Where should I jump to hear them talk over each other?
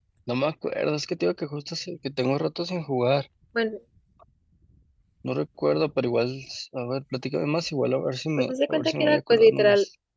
8.4 s

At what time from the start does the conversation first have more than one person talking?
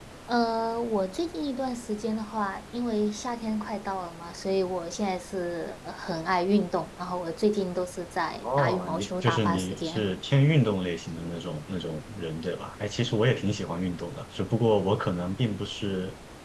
8.4 s

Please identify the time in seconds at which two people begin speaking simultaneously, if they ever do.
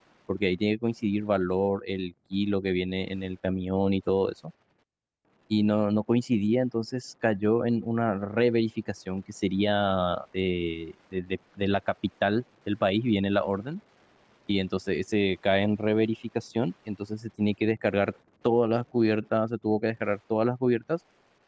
none

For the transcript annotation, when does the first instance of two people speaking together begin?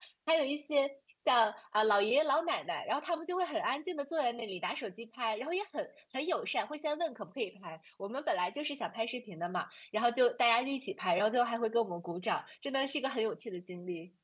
none

